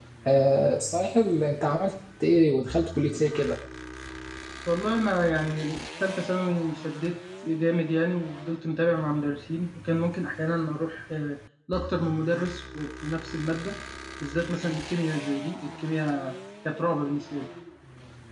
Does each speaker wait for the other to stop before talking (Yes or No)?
Yes